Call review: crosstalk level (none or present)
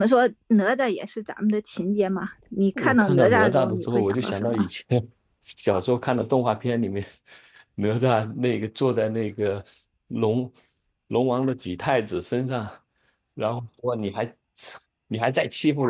present